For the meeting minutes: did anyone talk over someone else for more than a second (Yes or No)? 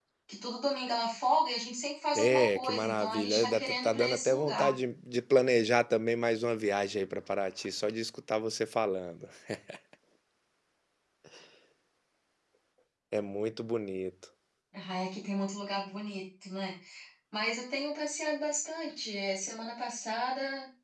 Yes